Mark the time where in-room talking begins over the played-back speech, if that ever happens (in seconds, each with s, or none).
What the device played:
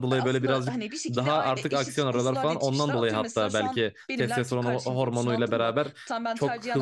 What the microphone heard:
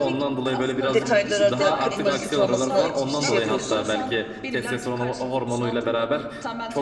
0.9 s